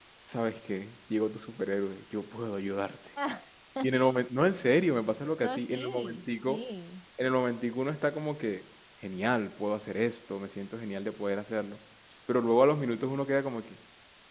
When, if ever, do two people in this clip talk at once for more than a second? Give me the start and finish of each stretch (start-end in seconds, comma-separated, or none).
5.4-6.7